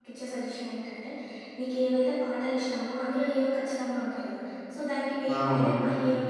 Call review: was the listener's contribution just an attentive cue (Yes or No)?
Yes